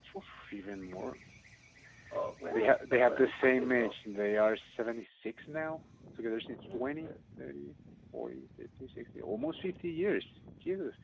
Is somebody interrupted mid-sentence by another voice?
Yes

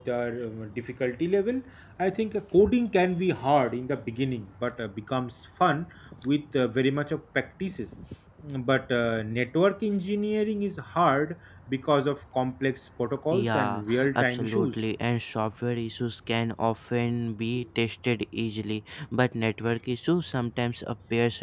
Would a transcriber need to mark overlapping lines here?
Yes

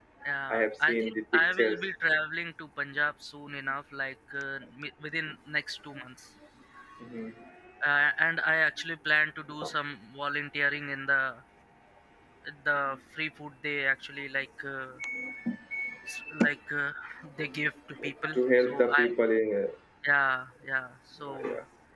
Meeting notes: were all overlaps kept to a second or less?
No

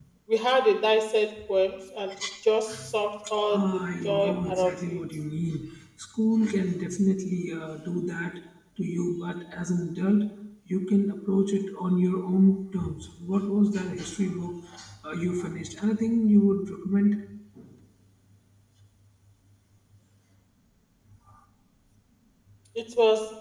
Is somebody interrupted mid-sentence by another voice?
Yes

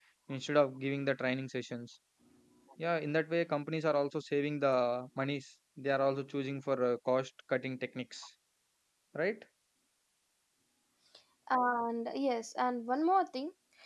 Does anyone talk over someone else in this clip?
No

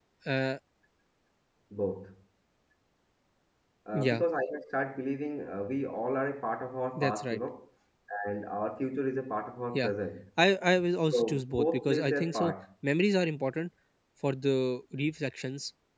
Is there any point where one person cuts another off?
Yes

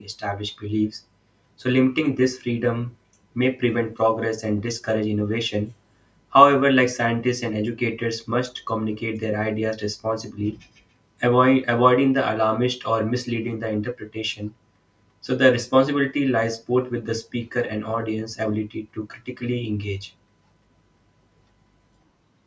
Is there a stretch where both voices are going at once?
No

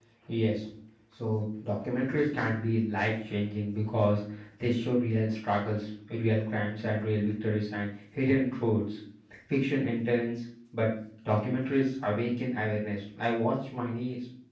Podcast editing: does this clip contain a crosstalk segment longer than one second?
No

